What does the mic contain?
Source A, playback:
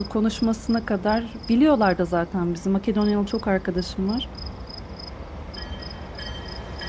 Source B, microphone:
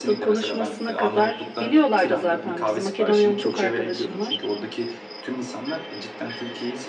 both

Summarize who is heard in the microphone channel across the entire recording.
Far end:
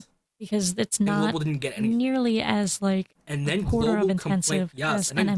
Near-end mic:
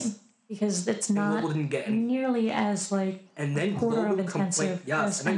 echo only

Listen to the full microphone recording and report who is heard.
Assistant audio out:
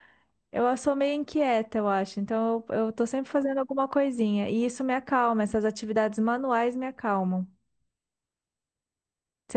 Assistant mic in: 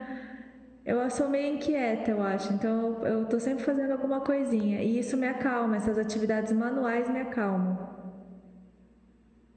echo only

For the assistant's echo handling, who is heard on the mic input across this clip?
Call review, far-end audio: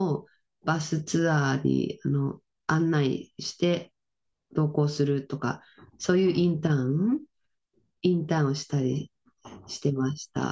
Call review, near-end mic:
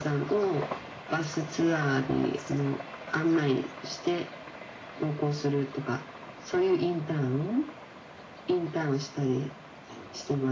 echo only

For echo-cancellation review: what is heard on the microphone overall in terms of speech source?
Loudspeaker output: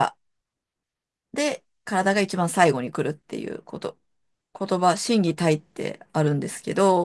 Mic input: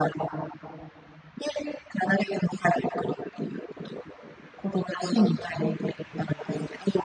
echo only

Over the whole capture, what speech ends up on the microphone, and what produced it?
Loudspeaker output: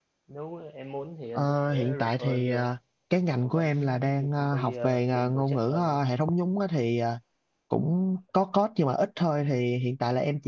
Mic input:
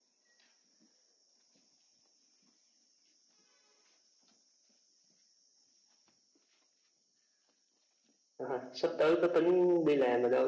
user only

